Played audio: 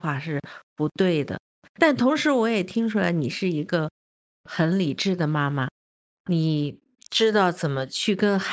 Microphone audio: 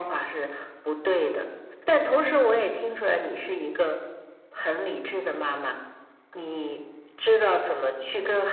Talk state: echo only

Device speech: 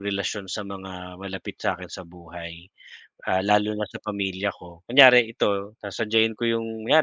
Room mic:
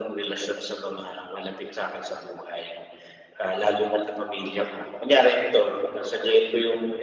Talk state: echo only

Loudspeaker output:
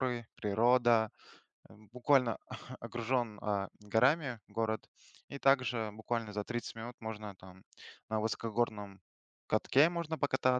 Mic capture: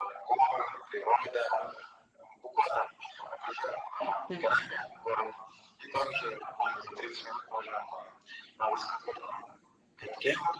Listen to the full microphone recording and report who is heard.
both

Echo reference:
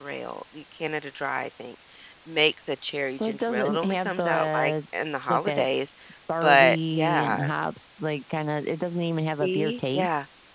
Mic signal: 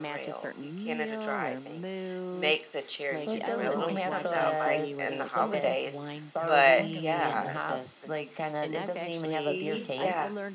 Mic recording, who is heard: both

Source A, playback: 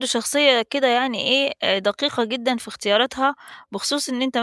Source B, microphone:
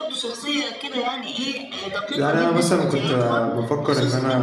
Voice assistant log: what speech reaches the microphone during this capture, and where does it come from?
both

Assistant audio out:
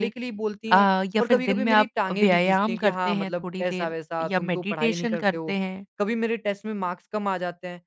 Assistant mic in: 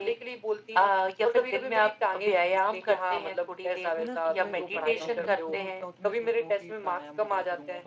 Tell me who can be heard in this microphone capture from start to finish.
both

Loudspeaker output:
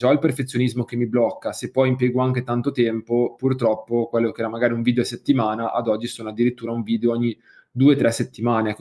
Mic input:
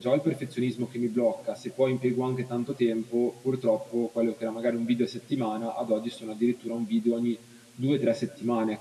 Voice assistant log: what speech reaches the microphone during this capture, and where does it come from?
echo only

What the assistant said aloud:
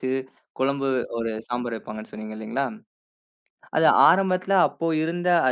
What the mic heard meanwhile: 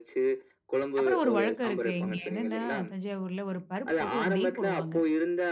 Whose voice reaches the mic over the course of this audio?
both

